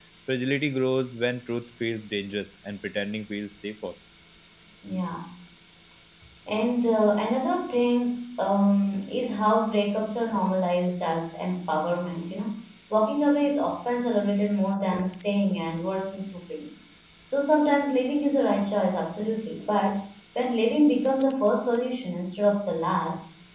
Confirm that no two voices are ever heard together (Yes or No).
Yes